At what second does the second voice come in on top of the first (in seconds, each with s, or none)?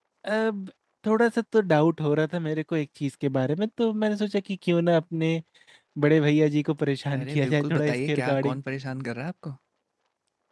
7.1 s